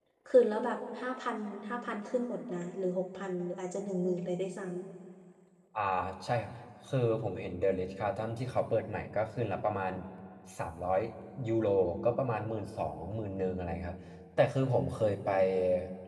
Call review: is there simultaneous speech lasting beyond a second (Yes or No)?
No